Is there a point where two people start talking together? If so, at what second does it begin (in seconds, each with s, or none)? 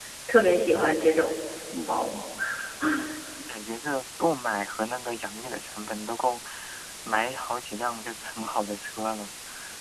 none